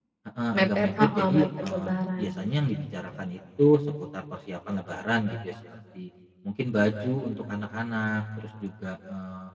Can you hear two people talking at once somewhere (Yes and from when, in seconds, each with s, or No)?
Yes, from 0.6 s